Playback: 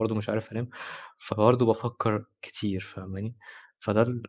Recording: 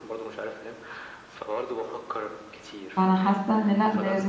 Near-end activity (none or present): present